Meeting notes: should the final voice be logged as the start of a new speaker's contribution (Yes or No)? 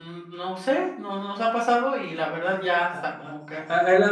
Yes